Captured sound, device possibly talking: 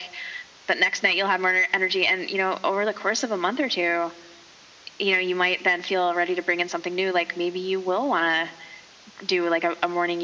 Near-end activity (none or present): none